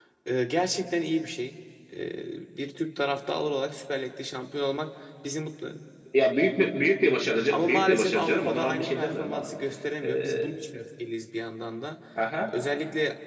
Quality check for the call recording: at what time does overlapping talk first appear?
7.5 s

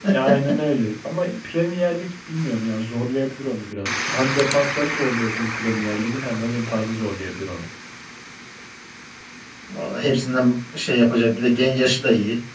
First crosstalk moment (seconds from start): none

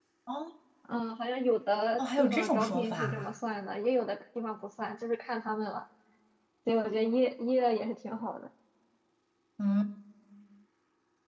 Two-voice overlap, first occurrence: 2.0 s

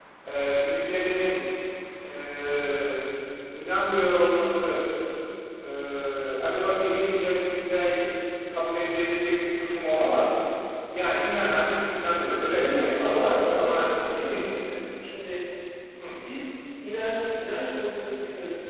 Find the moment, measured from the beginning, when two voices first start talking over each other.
12.5 s

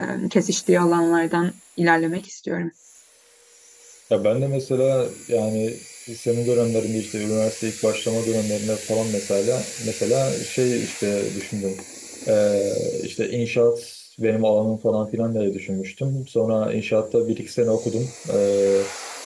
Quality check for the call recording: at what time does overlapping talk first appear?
none

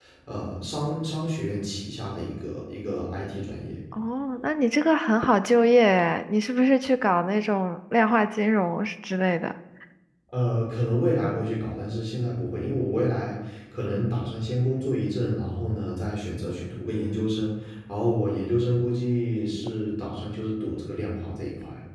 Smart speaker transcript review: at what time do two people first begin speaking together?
none

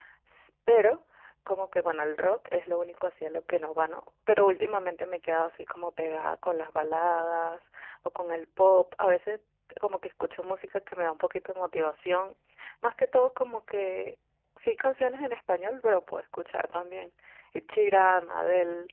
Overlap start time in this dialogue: none

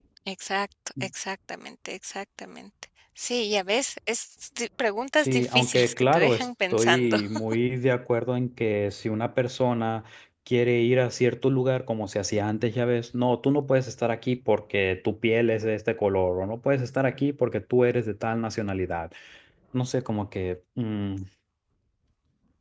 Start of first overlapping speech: 5.2 s

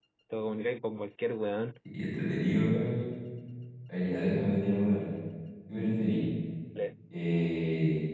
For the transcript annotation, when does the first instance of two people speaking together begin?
none

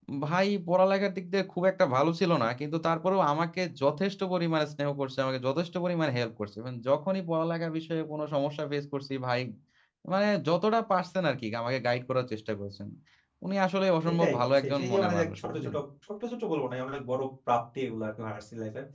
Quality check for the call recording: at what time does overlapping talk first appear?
14.1 s

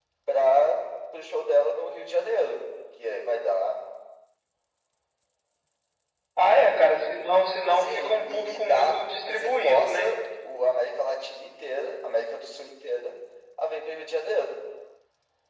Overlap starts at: 7.8 s

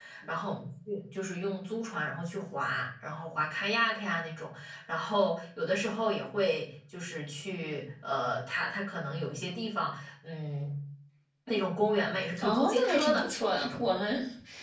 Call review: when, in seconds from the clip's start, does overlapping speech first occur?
12.4 s

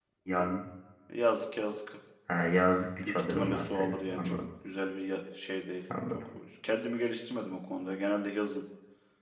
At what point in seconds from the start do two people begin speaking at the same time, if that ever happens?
3.0 s

